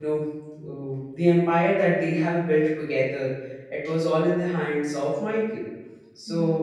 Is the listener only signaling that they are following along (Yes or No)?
Yes